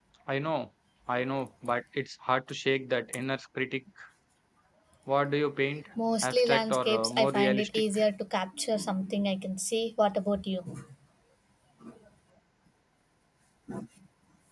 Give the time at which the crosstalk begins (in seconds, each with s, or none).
6.2 s